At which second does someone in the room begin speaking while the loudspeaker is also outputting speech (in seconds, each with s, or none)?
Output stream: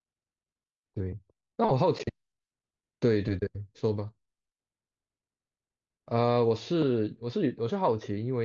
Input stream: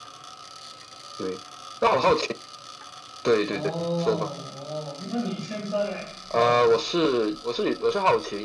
3.5 s